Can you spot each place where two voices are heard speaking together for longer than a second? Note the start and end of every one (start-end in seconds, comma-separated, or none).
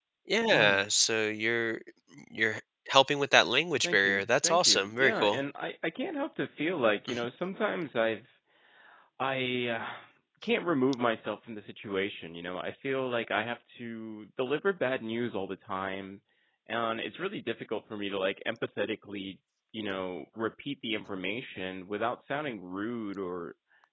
3.8-5.4